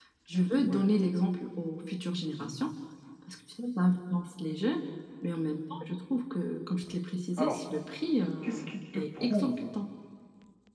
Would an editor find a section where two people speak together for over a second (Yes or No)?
Yes